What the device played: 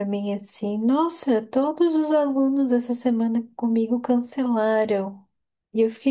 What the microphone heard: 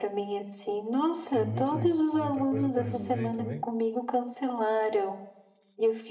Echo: present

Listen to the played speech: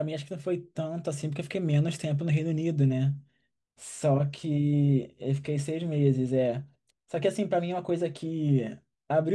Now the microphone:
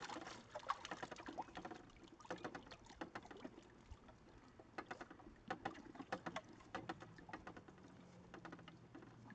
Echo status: none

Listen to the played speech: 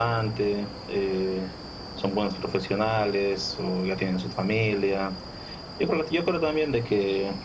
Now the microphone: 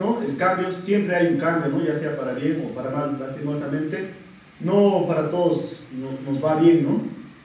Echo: none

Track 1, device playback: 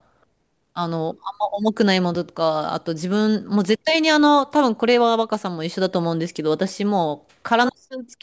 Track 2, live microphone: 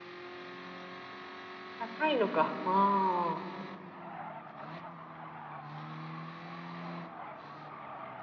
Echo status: none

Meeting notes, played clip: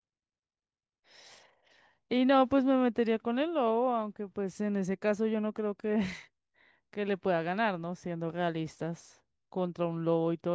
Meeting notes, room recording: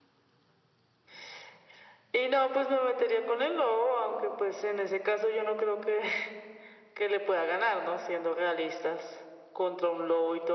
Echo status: present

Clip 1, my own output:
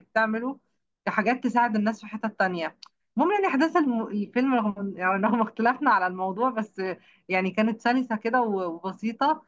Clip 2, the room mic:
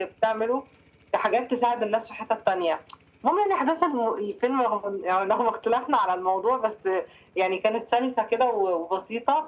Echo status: present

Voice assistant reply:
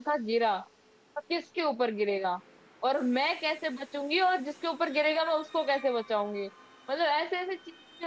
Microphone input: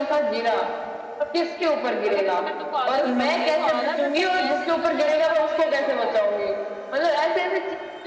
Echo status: present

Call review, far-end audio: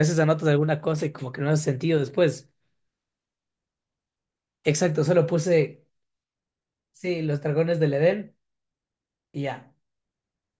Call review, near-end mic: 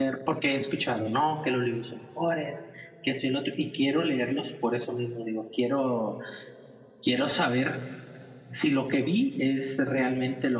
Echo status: none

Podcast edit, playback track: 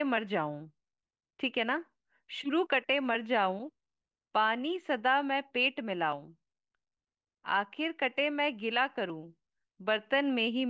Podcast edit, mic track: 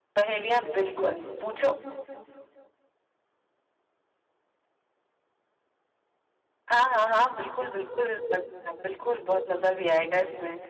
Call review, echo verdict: none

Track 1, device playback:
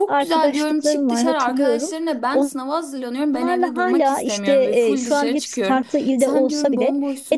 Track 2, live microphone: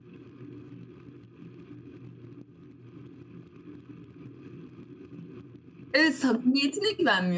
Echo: none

